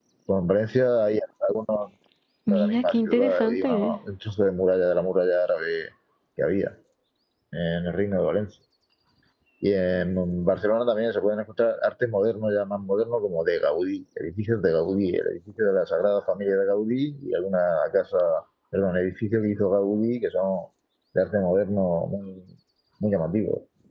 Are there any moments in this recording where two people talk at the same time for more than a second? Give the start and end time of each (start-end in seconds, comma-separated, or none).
2.5-4.0